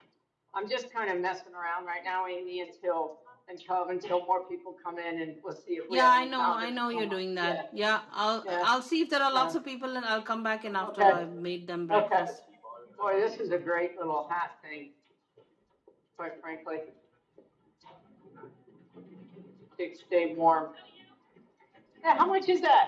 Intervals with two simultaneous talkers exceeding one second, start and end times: 5.9-7.6

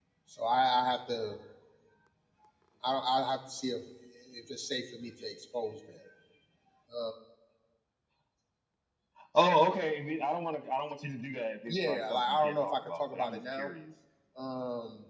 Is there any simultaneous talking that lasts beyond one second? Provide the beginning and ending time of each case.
11.7-13.7

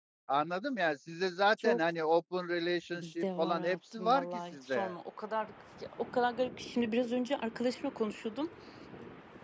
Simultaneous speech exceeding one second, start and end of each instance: 3.0-4.9

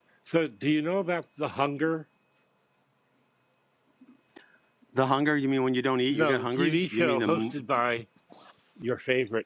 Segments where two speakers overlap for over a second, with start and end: 6.1-7.6

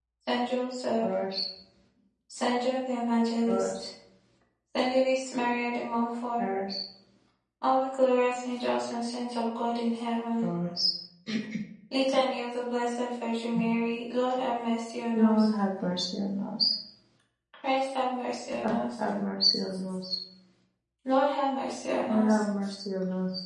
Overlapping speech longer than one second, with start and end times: none

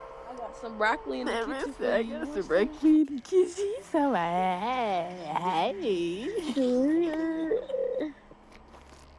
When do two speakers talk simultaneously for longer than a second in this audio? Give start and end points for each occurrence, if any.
1.2-2.7

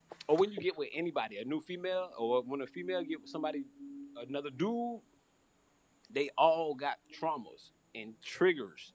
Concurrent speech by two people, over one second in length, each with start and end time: none

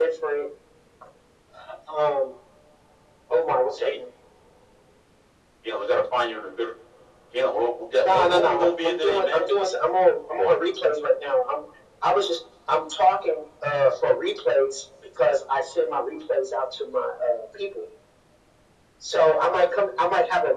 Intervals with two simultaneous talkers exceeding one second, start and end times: 8.0-9.5

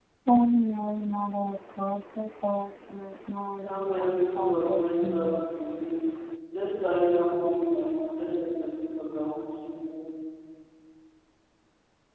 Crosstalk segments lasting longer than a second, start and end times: 3.6-5.4

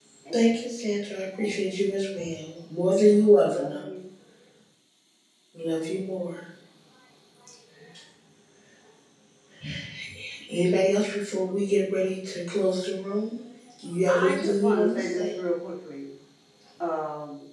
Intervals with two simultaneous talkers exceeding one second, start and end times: 14.1-15.3

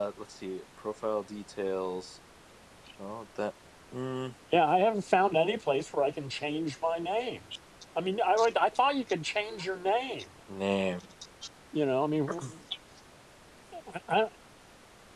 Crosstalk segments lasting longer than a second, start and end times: none

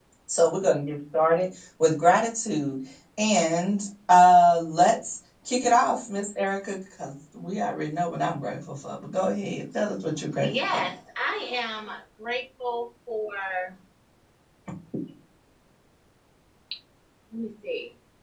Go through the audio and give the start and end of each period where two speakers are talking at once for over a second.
none

